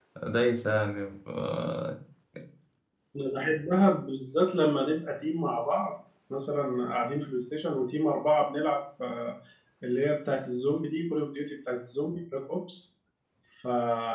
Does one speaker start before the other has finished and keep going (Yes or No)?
No